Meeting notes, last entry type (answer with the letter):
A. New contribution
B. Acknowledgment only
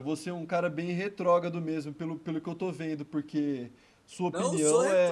A